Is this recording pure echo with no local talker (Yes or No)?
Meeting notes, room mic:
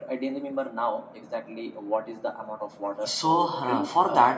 No